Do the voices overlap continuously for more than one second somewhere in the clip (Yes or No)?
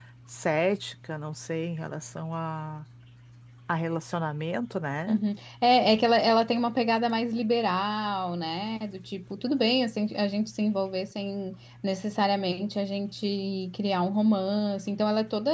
No